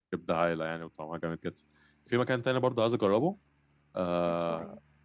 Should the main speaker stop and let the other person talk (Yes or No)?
No